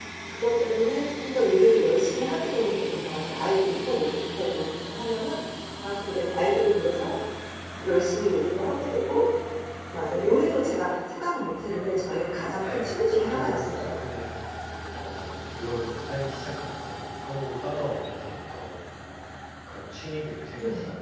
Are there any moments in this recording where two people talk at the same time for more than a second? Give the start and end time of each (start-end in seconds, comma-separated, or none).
12.5-14.0